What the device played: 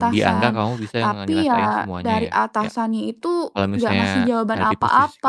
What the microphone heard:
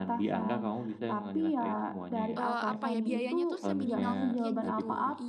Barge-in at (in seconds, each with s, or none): 2.4 s